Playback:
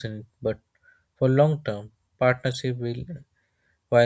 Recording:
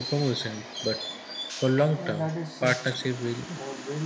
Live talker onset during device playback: 1.9 s

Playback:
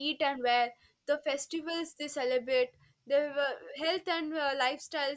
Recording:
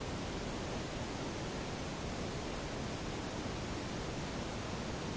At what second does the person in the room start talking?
none

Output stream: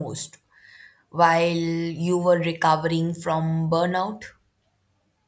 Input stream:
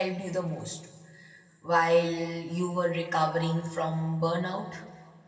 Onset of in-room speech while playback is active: none

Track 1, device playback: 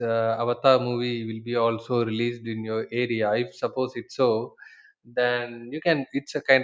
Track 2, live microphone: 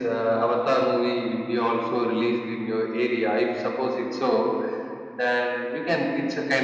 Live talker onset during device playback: none

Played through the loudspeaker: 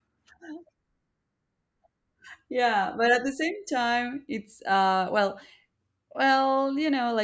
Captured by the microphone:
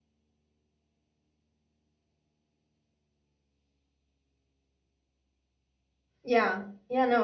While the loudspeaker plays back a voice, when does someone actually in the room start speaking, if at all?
6.2 s

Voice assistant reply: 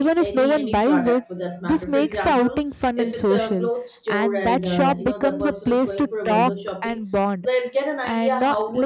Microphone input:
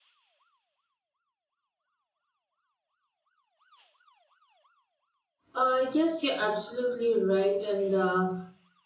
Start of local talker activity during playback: 5.5 s

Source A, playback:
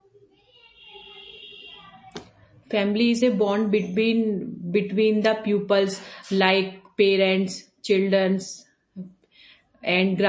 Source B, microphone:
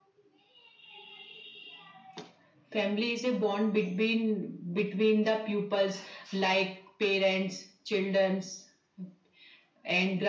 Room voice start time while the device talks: none

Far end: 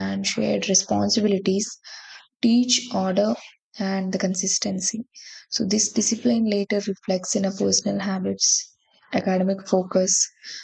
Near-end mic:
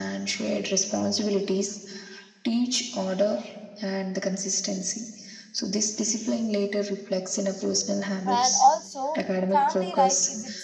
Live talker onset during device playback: 8.2 s

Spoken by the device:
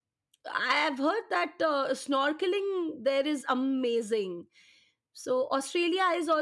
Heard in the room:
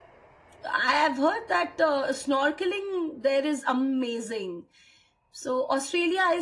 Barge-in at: none

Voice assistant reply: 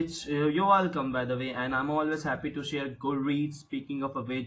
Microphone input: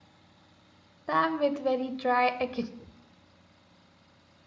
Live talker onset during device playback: 1.1 s

